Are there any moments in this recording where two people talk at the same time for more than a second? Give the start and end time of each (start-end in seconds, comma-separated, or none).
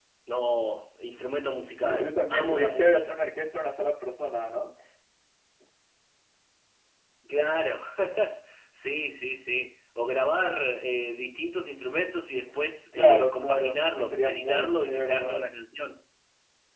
1.8-3.2, 12.9-15.5